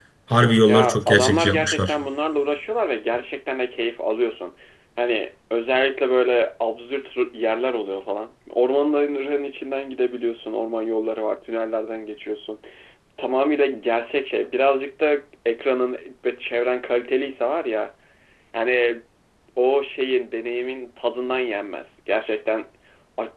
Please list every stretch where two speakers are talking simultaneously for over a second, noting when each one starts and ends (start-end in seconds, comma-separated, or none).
0.7-1.9